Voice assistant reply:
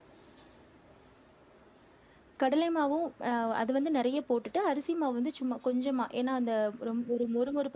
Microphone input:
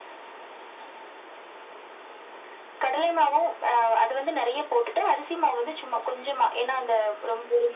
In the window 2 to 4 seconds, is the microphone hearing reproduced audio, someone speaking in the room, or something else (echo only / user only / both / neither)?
echo only